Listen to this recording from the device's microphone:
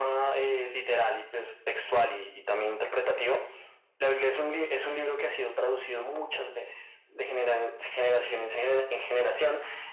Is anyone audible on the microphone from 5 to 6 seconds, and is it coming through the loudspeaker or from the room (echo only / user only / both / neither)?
echo only